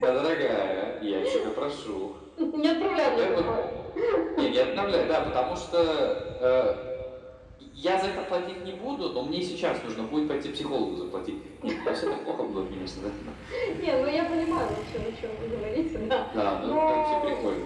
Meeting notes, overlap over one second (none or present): present